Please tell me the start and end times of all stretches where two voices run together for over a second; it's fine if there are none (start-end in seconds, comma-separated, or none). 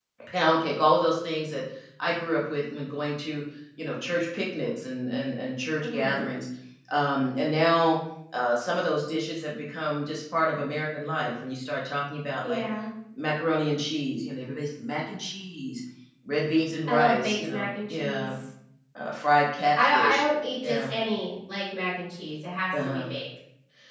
16.9-18.3